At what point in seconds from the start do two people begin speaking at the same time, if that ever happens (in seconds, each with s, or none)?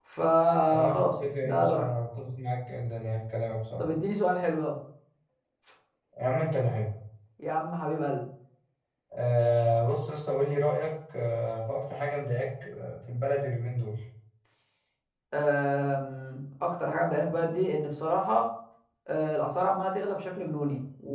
0.7 s